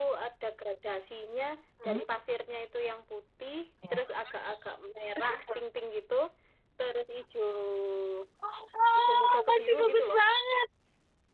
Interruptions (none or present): present